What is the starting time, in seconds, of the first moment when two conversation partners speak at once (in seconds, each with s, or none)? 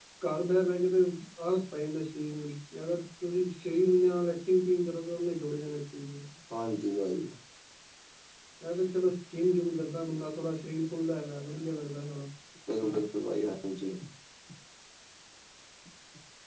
none